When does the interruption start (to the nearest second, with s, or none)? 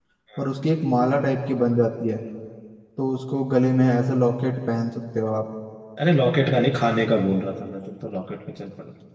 none